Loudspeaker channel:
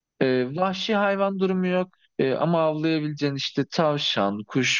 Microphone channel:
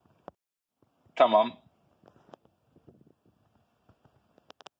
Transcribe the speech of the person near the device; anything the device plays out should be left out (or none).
Tamam.